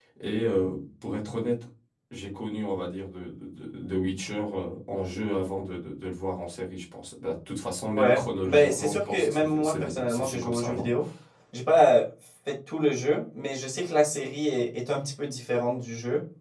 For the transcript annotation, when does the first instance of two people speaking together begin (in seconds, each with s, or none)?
7.9 s